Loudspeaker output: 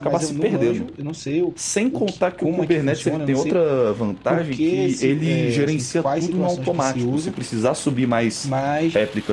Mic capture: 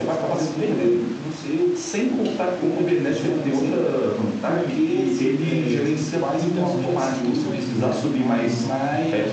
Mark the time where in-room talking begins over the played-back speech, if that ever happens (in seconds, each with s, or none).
6.4 s